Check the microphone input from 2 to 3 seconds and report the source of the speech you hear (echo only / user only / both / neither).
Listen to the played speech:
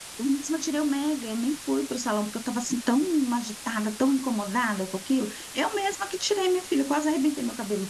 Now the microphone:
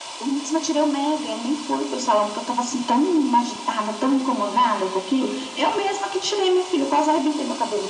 echo only